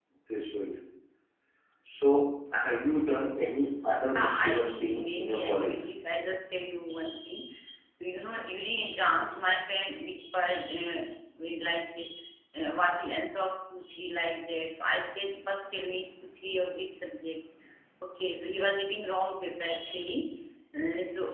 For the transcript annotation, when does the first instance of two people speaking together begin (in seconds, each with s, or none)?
4.2 s